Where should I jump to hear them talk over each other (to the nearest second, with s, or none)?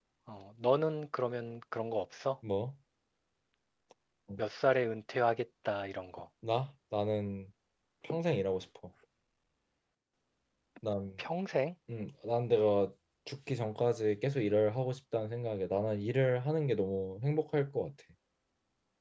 none